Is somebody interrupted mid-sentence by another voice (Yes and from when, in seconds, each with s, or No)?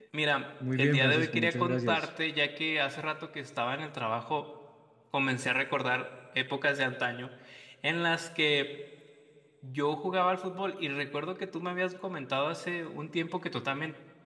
Yes, from 0.8 s